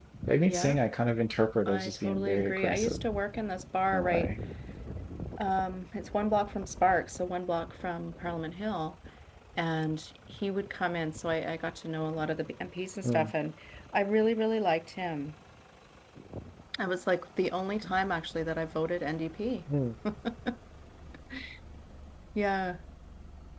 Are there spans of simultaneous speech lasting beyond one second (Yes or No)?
Yes